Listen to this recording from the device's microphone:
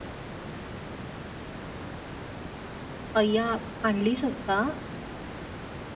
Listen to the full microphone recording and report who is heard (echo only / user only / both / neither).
user only